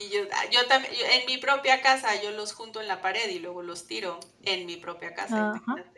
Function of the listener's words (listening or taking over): taking over